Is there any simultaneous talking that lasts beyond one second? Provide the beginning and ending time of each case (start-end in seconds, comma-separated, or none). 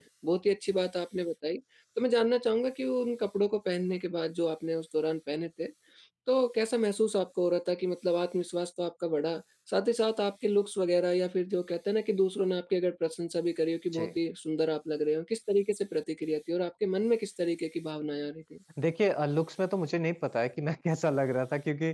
none